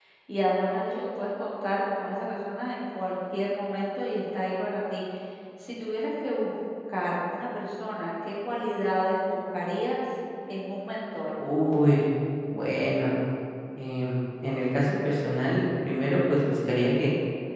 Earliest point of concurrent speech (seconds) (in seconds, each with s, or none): none